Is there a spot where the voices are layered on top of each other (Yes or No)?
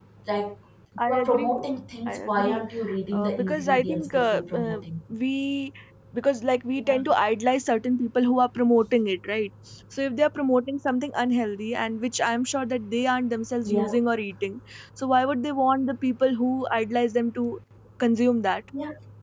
Yes